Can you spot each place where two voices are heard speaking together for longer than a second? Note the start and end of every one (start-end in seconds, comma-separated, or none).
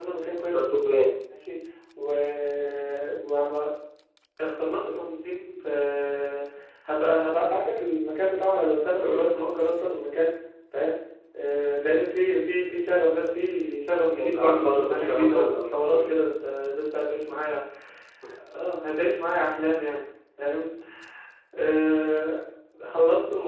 14.1-15.7